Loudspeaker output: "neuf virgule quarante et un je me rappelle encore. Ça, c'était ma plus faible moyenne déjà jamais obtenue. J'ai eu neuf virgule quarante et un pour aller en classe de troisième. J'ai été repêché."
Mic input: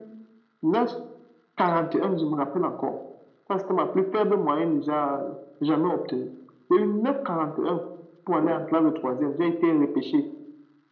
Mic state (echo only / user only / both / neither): echo only